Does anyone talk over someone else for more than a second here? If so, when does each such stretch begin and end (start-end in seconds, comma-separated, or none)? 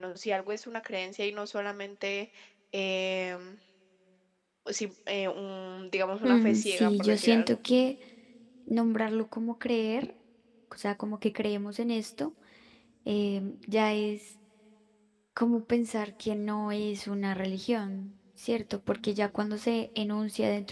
6.2-7.6